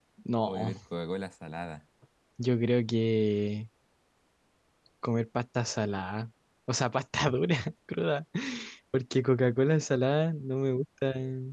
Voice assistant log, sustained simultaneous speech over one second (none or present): none